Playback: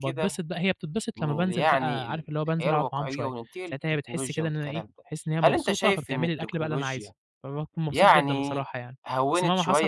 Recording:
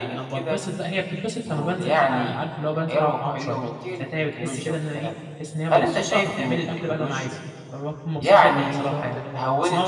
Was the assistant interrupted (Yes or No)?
Yes